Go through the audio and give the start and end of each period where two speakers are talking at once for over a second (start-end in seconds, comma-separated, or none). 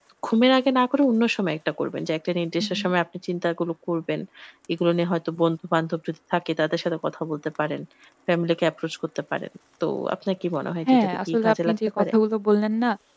10.9-12.1